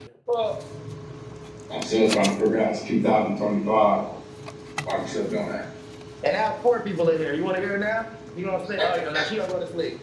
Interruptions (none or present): none